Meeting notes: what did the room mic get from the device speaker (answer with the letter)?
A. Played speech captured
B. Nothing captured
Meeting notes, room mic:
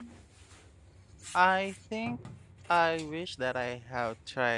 B